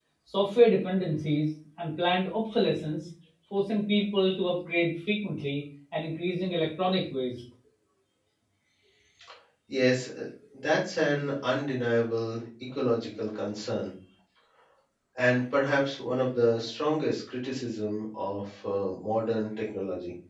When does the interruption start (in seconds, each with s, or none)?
none